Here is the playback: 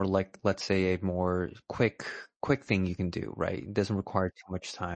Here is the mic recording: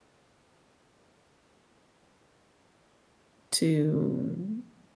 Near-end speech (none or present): present